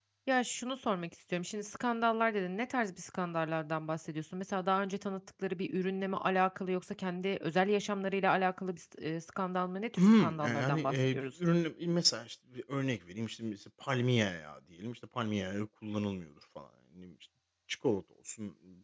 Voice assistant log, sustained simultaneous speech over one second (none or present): present